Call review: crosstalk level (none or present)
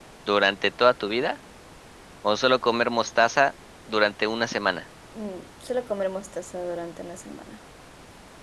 none